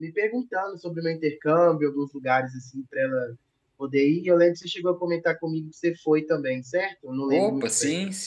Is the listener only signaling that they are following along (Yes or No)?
No